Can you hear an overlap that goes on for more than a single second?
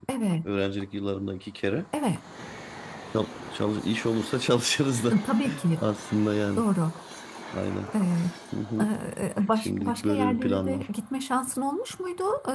Yes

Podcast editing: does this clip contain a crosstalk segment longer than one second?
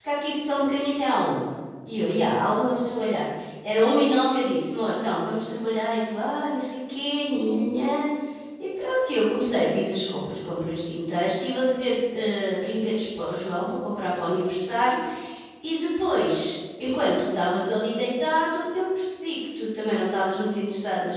No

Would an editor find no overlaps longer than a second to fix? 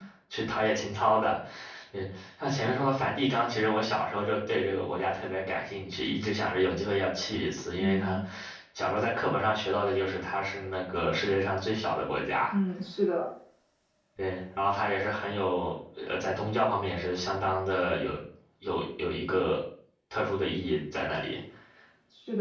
Yes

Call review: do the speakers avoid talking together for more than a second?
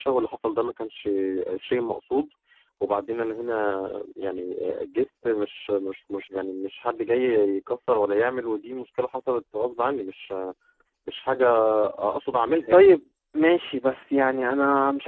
Yes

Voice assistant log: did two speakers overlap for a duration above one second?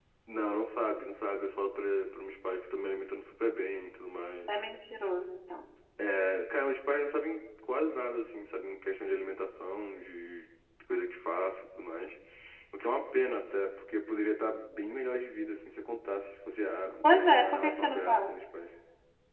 Yes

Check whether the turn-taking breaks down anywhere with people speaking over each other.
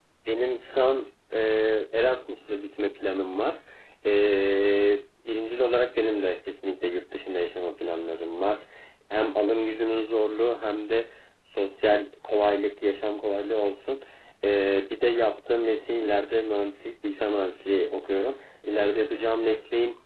No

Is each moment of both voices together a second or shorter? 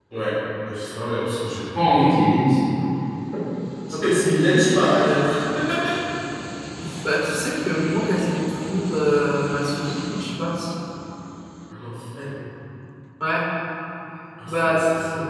Yes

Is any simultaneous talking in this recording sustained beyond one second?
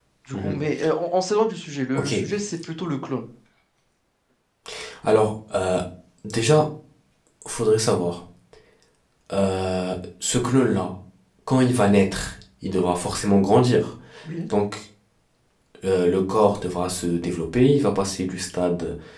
No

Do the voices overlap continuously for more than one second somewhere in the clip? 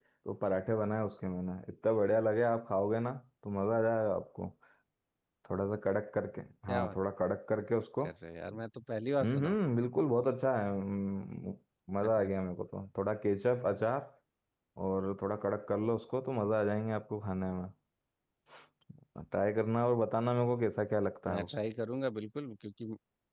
No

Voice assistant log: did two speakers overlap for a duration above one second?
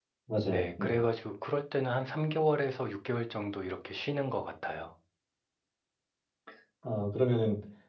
No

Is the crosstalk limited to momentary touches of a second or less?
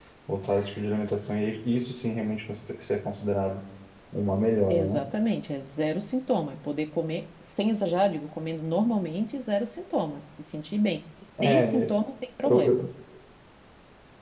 Yes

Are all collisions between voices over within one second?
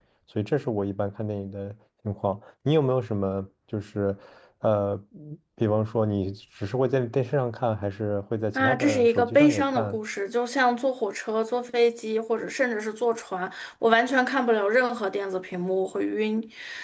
No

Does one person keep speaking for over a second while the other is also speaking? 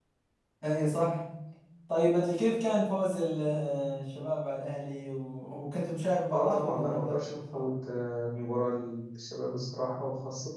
Yes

